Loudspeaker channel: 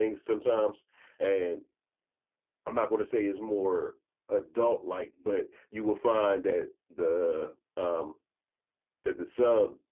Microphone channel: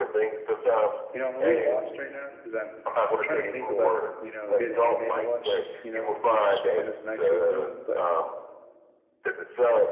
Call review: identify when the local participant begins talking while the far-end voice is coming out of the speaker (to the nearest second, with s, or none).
1 s